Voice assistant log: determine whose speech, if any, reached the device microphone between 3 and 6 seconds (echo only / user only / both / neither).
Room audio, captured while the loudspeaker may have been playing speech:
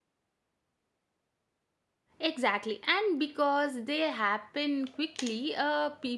user only